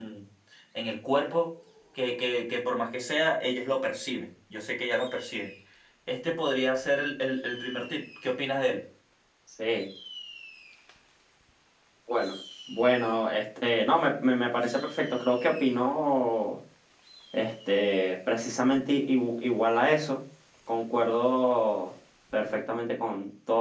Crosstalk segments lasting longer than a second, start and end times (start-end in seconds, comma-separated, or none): none